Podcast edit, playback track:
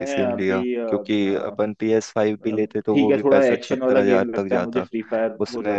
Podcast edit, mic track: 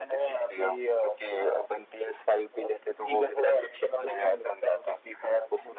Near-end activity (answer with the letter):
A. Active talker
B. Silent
B